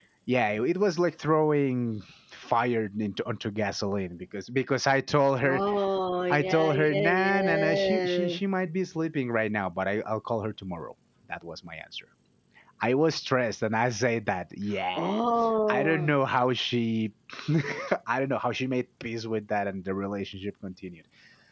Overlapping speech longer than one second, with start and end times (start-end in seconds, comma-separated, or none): 6.3-8.3